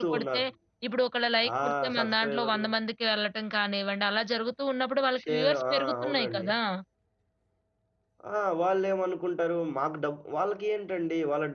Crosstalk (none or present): present